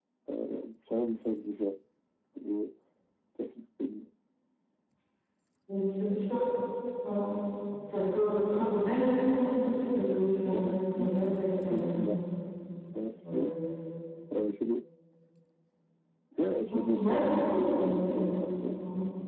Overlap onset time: 10.5 s

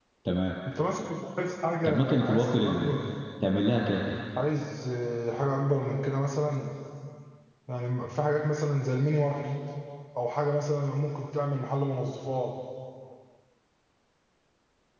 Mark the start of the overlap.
1.8 s

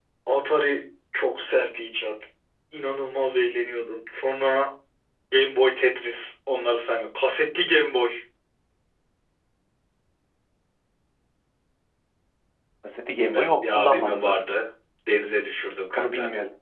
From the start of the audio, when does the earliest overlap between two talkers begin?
13.3 s

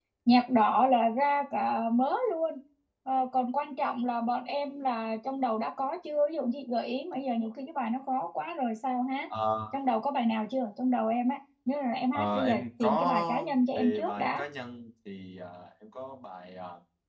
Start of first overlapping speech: 12.1 s

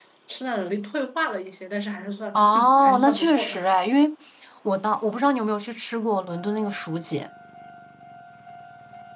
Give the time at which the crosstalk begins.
2.3 s

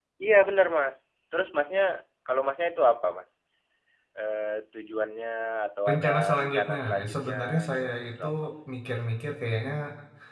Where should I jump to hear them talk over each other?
5.9 s

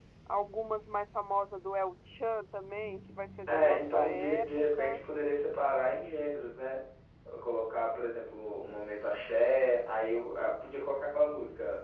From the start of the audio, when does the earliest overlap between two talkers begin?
3.5 s

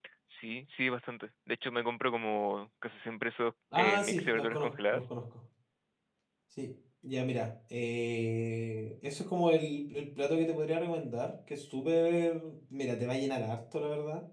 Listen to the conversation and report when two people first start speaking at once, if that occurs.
3.7 s

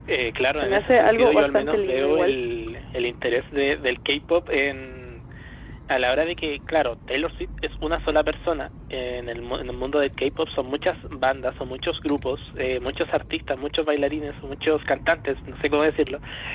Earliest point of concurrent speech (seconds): 0.6 s

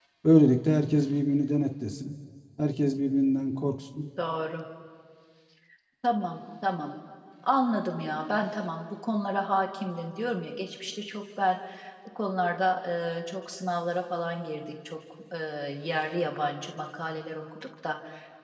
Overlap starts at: none

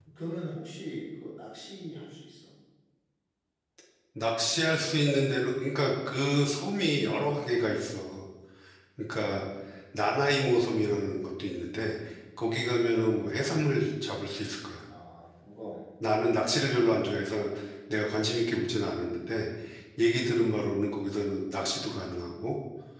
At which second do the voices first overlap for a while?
none

